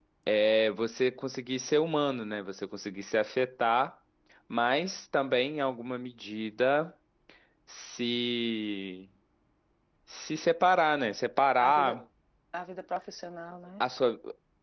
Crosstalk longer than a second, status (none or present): none